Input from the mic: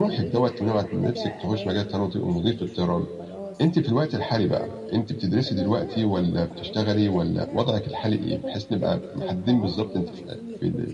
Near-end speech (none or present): present